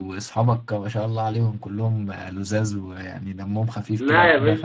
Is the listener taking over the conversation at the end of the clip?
Yes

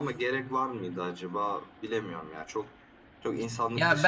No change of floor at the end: No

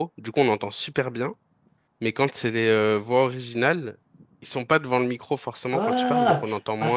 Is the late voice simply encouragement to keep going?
No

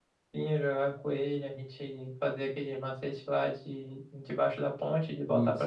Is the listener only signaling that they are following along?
No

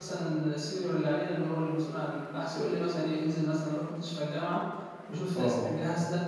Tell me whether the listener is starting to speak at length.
No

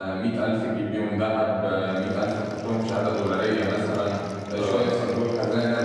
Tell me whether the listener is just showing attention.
Yes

